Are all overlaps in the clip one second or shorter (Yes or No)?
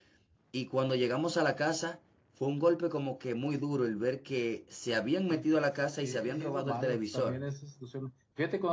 No